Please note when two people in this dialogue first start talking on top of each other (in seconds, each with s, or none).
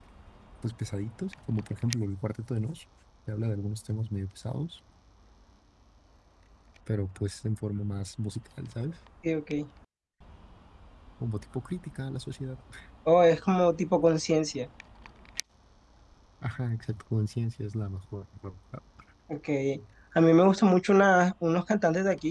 none